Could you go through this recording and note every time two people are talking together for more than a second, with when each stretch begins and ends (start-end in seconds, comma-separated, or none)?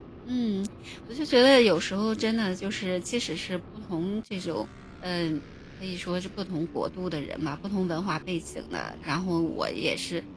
none